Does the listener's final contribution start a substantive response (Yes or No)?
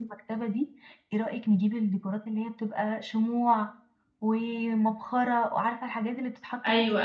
Yes